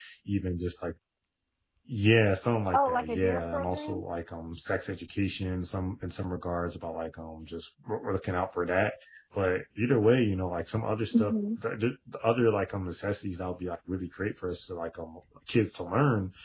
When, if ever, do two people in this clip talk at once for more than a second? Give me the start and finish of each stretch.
2.7-4.0

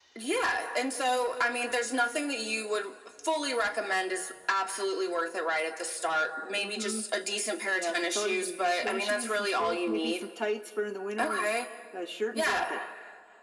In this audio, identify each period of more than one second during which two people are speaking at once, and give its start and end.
7.7-10.2

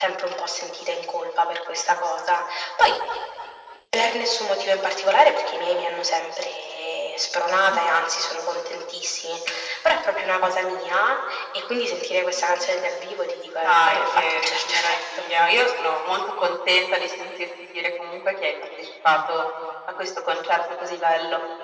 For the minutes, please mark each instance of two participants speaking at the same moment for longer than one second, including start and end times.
13.6-15.2

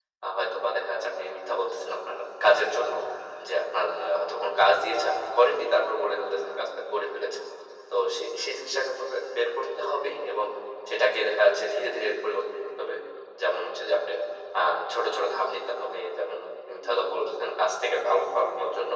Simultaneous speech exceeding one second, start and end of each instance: none

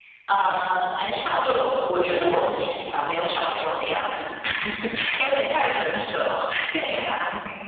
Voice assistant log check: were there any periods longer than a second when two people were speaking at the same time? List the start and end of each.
none

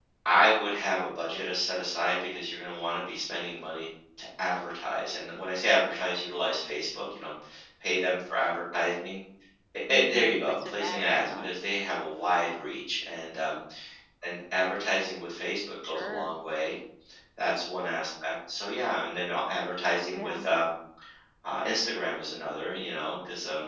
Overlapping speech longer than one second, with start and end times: 9.9-11.5

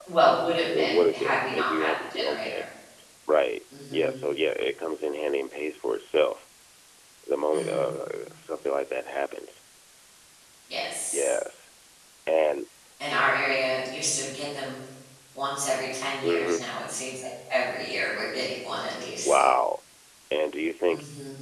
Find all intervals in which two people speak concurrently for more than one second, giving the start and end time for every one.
0.8-2.6

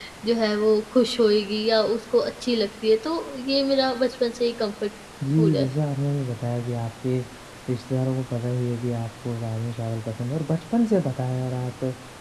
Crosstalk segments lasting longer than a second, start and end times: none

